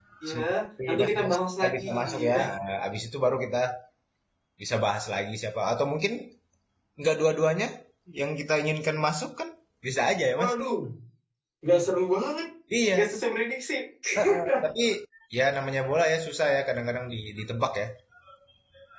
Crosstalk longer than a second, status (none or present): present